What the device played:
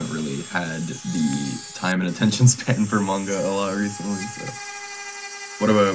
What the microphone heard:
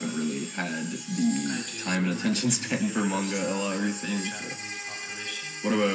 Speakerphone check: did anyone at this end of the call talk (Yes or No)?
Yes